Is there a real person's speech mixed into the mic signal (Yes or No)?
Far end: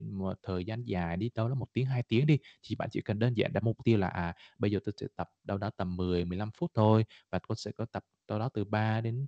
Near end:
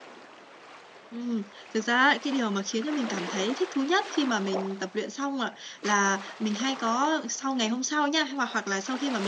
Yes